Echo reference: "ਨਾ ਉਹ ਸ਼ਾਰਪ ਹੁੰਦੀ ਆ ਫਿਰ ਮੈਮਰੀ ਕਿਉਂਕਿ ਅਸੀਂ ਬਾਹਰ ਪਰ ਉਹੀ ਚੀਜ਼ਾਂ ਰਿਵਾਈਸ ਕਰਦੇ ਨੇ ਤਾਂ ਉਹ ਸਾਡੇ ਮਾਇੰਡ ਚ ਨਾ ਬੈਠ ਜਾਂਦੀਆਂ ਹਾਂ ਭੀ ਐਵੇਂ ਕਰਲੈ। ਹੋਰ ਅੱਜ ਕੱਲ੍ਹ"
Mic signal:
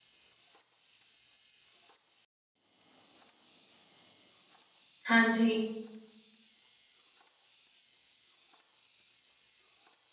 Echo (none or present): none